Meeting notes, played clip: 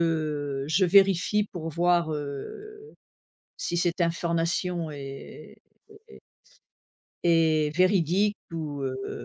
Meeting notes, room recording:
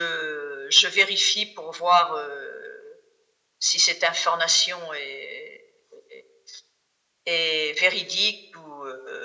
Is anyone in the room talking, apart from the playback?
No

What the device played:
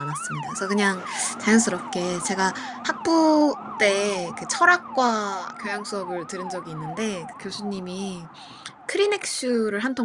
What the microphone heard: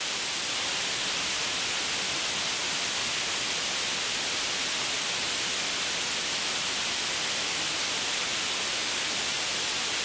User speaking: No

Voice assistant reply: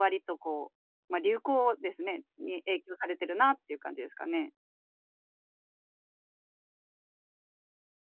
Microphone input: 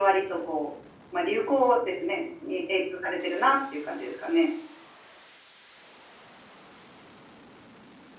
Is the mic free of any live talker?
Yes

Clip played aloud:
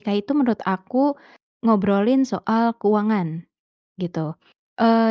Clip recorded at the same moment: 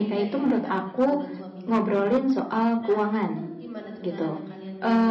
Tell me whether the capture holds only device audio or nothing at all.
No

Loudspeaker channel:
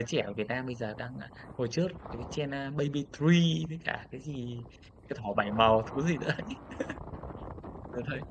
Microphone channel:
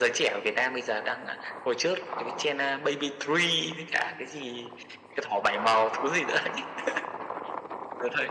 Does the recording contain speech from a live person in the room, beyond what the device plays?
No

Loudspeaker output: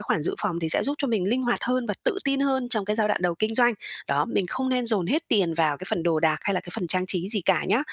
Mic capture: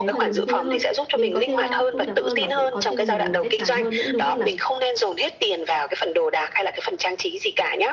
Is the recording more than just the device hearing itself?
Yes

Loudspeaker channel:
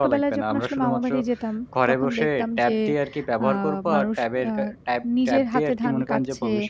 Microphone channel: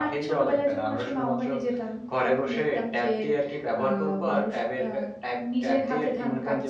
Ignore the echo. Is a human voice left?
No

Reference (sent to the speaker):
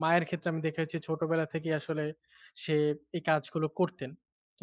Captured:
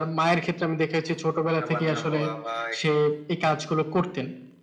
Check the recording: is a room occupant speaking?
Yes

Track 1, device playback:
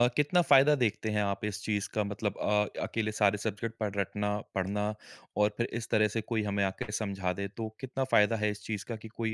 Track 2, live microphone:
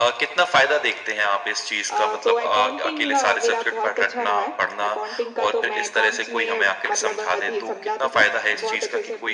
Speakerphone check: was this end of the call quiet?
No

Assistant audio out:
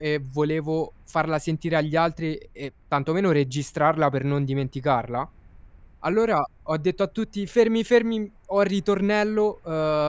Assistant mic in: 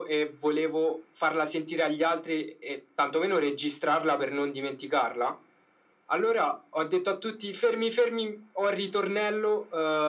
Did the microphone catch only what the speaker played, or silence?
Yes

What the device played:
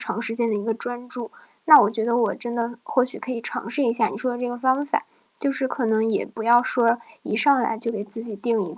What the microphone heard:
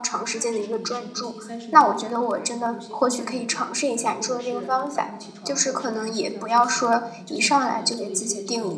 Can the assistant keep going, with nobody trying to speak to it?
No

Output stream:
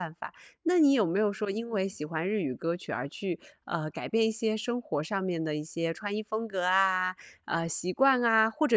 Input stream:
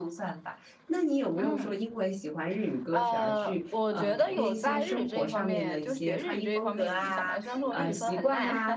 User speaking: Yes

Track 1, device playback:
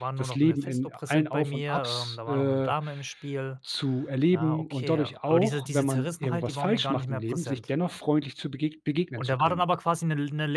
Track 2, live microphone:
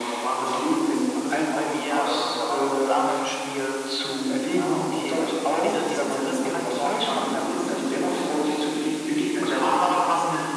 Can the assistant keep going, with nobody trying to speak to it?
Yes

